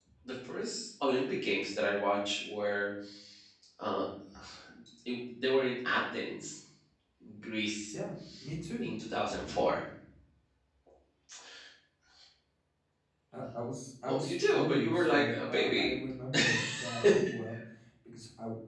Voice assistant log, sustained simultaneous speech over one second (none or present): present